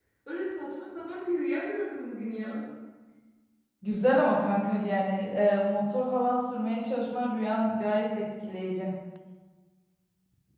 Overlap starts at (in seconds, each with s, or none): none